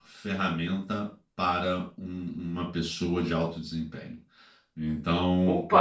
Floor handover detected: No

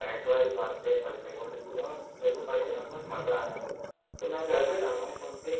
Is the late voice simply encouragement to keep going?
Yes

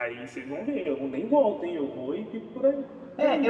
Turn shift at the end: Yes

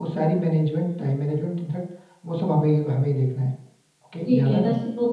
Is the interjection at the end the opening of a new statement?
Yes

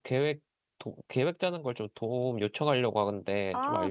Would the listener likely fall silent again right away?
No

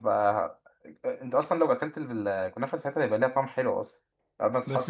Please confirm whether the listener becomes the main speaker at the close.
Yes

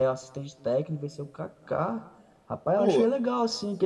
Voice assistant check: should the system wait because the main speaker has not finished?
Yes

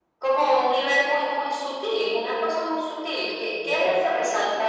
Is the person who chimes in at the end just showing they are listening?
Yes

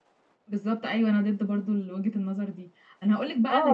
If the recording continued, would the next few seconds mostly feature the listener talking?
No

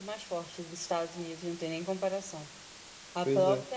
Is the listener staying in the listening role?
Yes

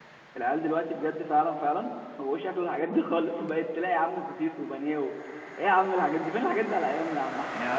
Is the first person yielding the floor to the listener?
Yes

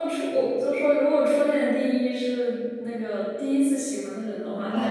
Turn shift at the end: Yes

